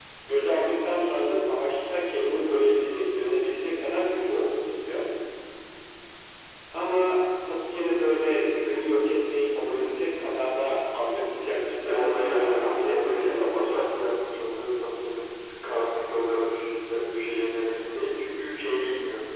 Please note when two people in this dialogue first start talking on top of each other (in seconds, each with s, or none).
11.8 s